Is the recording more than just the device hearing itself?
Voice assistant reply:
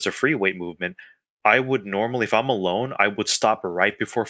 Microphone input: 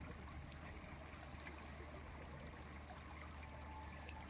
No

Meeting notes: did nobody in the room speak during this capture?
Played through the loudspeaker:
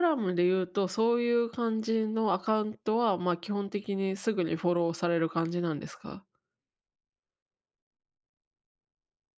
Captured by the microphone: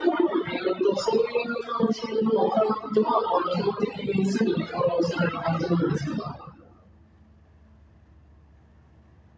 Yes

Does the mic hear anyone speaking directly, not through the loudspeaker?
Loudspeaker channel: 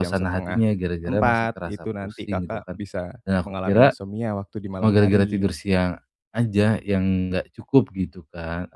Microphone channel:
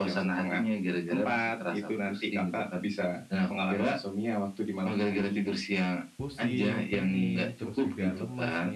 Yes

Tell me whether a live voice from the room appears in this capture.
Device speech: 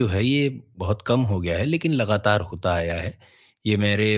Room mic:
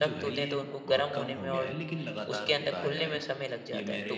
Yes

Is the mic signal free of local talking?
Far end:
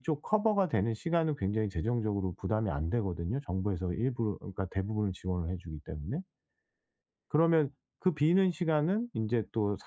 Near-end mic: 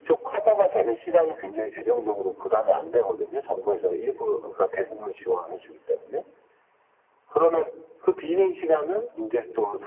Yes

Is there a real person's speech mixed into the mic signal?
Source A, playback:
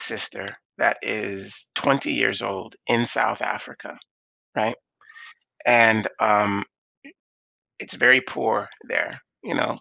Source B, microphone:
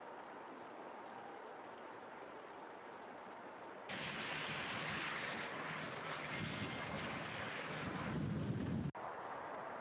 No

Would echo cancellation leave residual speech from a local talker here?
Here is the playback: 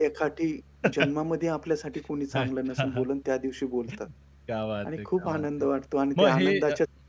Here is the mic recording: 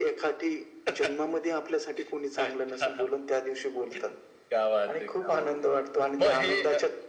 No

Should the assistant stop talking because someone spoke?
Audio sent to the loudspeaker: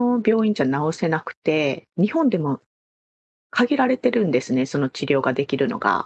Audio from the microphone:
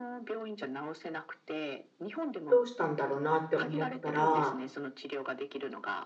Yes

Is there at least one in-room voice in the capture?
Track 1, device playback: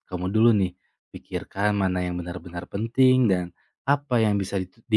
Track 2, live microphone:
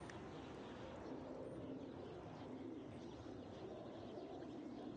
No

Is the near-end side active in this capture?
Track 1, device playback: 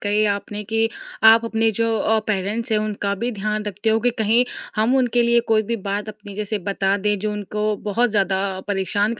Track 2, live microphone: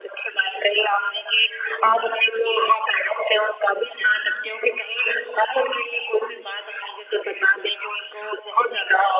No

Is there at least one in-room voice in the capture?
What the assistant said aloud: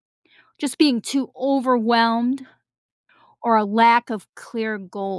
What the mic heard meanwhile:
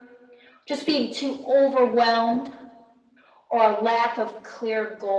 No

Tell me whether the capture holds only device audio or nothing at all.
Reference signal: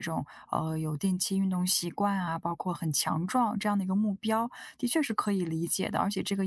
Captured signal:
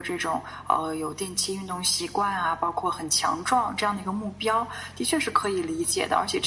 Yes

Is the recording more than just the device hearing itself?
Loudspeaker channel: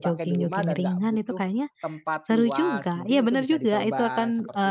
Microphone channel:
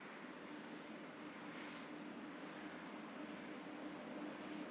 No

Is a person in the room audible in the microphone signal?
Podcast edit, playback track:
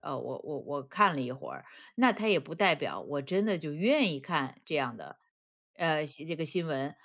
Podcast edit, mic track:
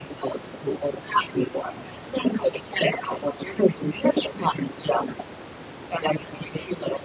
No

